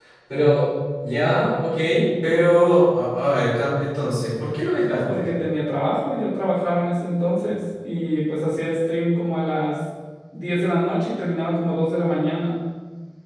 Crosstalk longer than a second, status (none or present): none